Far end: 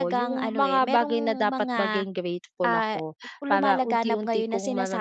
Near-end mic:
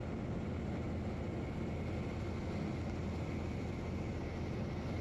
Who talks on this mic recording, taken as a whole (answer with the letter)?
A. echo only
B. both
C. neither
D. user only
C